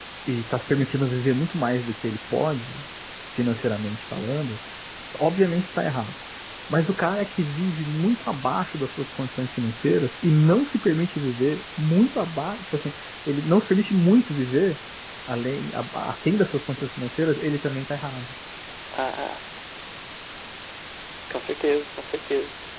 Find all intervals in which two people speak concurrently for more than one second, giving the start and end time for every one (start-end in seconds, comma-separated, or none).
none